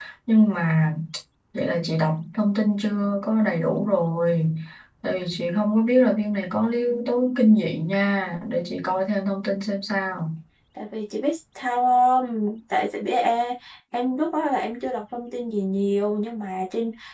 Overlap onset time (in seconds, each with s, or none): none